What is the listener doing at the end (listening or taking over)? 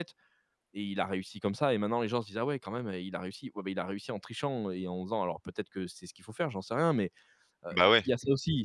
listening